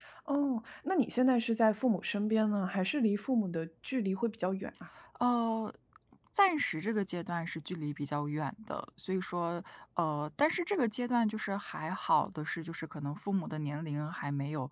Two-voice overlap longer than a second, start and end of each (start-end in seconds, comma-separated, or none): none